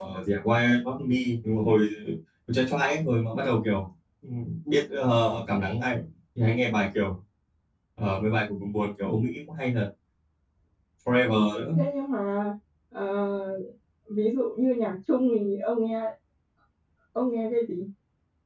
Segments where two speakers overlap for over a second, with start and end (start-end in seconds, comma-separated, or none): none